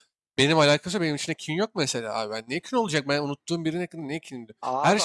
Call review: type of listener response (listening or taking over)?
listening